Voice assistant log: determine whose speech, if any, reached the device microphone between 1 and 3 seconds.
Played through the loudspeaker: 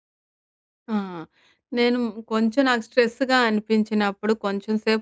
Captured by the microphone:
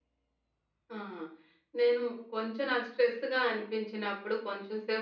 echo only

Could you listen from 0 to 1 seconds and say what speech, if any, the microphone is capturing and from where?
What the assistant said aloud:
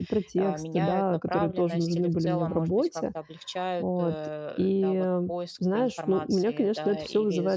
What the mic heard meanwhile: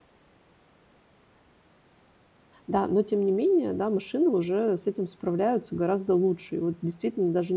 neither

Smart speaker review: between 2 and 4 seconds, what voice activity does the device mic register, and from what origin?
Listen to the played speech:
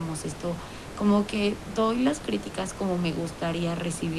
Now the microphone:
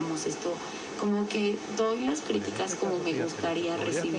both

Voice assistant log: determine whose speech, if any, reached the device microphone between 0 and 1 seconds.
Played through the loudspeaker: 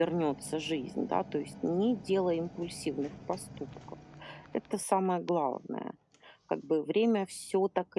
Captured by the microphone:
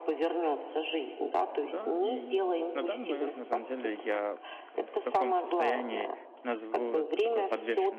echo only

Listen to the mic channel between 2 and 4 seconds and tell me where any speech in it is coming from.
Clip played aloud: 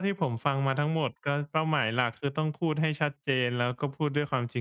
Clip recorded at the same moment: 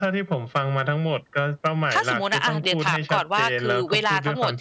both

